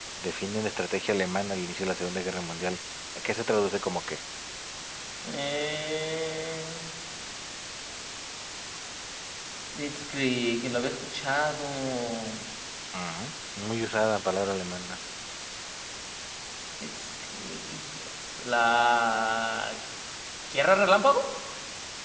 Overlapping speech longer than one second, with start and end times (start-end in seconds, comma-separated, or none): none